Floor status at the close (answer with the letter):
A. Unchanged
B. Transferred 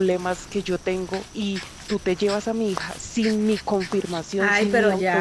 B